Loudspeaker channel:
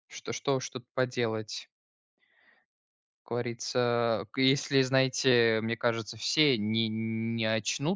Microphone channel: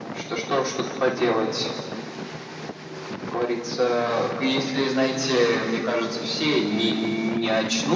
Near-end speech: none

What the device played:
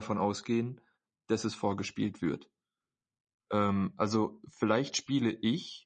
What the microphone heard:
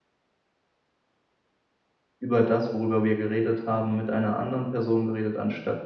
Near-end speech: present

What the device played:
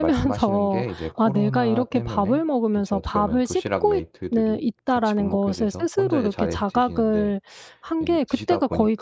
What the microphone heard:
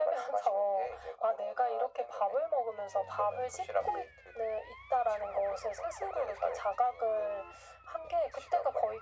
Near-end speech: none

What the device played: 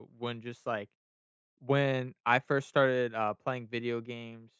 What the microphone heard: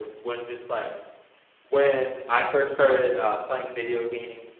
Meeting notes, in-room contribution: none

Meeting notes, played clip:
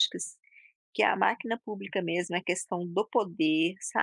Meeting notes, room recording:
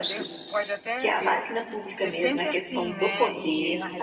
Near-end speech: present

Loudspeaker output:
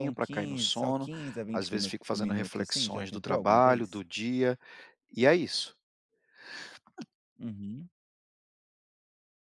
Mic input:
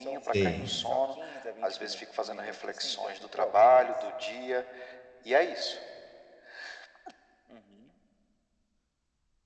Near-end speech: present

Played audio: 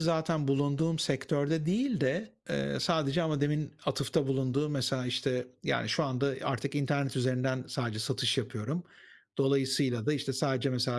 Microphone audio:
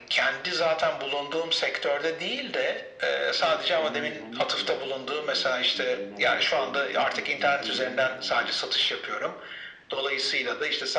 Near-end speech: present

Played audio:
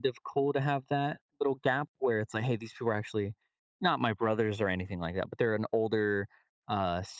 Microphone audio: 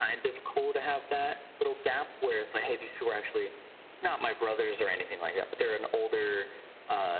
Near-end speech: none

